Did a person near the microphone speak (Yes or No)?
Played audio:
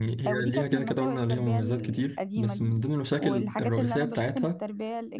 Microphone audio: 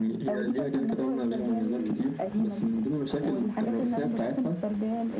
No